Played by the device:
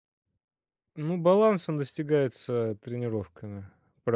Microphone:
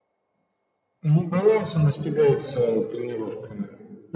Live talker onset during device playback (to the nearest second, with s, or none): none